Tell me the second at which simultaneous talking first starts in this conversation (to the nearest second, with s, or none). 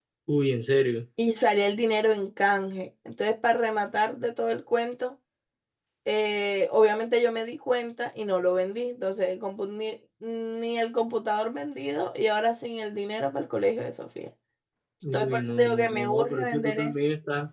15 s